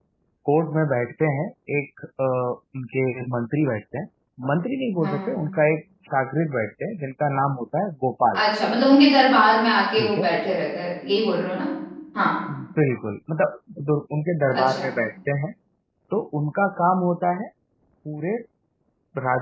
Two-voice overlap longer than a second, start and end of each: none

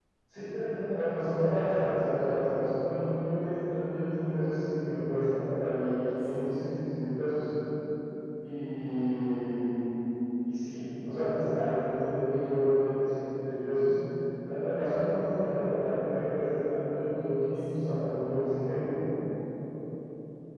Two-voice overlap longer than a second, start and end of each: 17.5-18.8

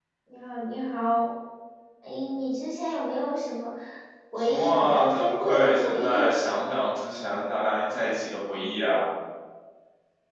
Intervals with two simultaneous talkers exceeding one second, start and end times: 4.4-6.2

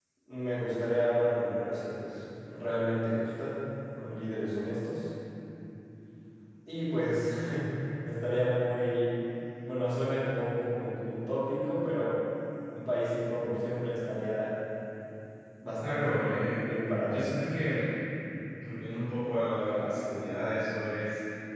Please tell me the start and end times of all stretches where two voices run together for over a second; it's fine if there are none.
15.8-17.3

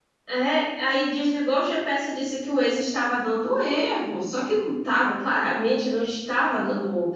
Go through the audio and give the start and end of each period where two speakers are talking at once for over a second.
none

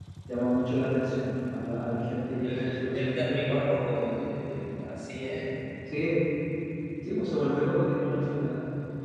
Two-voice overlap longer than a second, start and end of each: 2.4-3.6

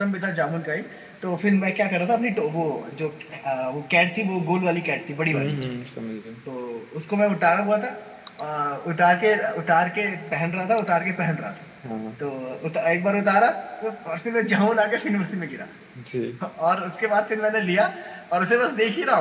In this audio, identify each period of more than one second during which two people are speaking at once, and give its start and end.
none

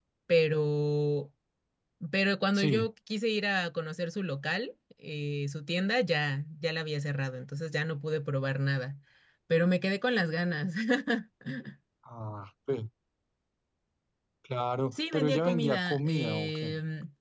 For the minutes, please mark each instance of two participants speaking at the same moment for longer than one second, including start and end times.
14.9-16.7

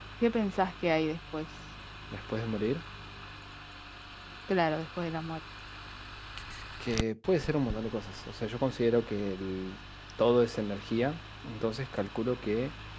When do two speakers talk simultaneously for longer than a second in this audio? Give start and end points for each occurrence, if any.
none

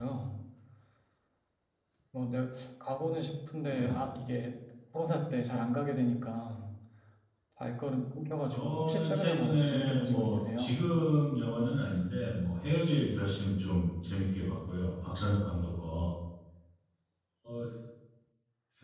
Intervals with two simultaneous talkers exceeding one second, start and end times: 8.5-10.8

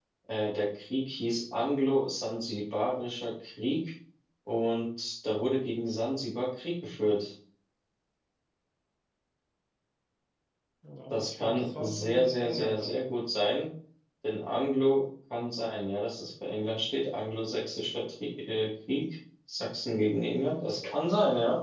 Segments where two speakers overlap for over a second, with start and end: 11.1-12.9

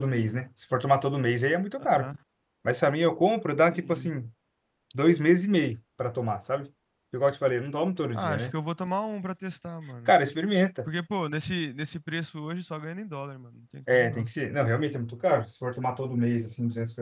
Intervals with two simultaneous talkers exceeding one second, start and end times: none

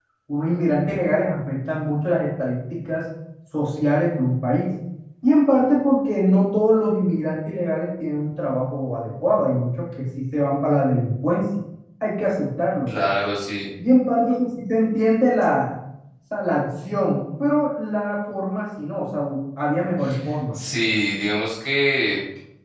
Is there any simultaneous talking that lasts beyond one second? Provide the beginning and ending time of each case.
none

